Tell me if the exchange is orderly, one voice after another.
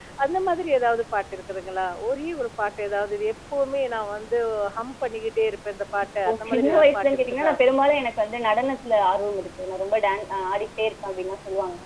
No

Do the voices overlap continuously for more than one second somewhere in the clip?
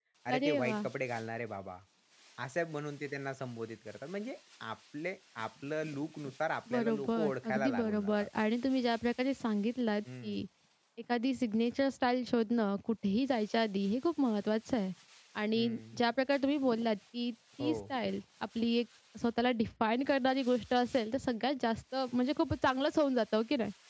Yes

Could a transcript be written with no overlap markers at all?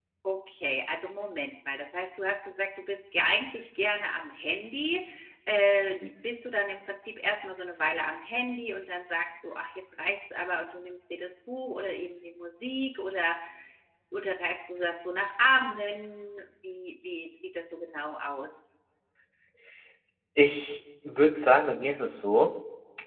Yes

